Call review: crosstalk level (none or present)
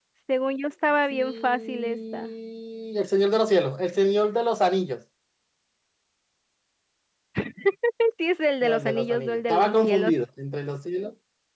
present